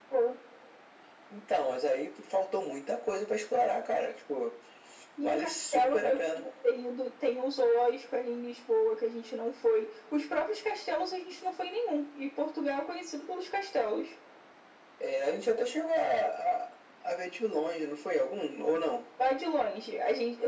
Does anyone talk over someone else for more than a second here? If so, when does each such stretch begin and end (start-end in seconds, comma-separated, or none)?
5.2-6.4